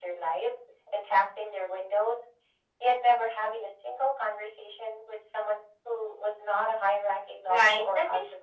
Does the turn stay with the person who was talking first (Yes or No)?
No